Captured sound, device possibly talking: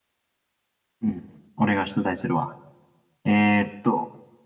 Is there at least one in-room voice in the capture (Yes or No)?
Yes